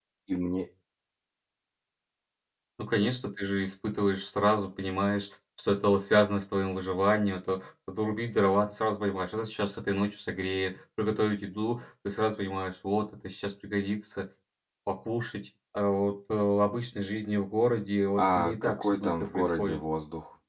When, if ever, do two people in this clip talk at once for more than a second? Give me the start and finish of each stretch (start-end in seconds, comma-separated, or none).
18.2-19.8